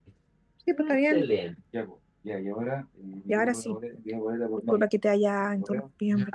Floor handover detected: Yes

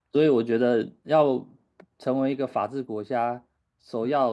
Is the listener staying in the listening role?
Yes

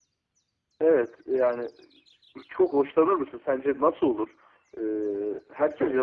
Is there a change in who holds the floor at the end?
Yes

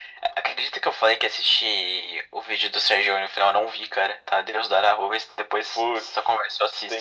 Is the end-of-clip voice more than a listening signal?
Yes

